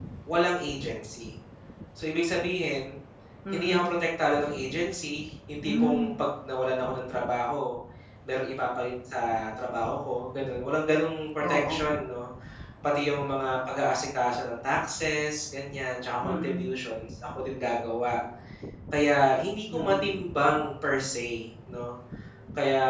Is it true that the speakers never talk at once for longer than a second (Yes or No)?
Yes